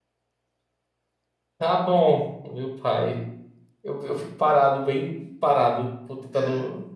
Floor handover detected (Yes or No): Yes